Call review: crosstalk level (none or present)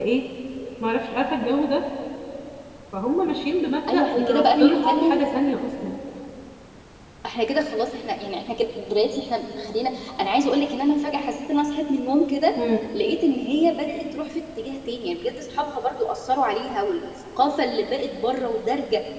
present